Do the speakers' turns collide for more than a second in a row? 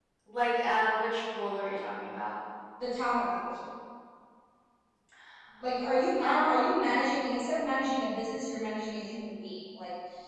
No

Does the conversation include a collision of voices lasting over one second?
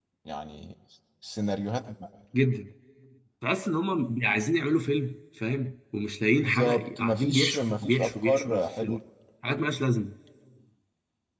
Yes, from 6.4 s

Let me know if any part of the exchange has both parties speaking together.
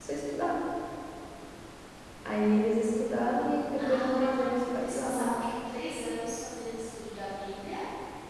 Yes, from 3.8 s

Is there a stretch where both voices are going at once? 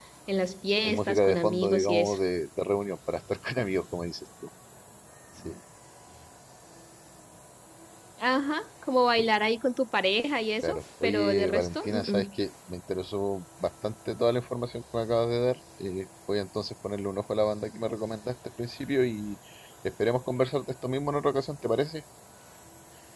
Yes, from 0.8 s

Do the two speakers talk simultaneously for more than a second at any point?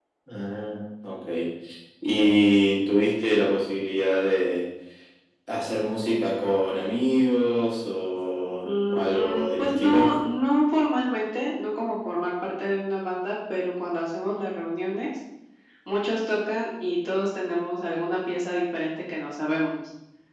Yes, from 8.6 s

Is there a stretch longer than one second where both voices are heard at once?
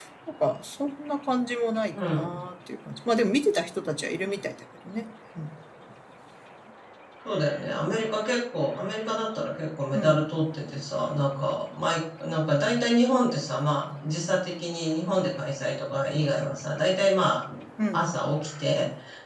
No

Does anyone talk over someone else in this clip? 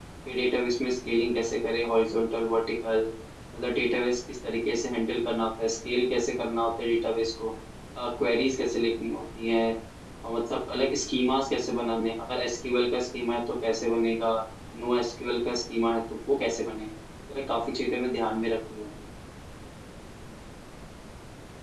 No

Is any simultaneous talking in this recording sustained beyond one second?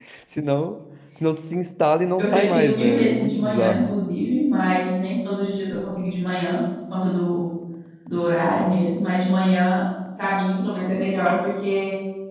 Yes, from 2.2 s

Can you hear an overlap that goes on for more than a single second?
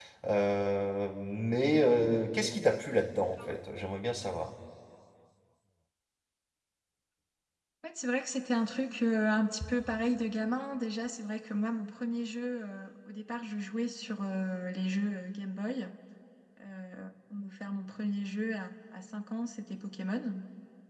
No

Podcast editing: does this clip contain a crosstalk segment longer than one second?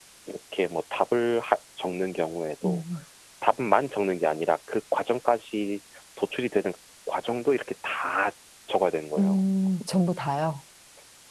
No

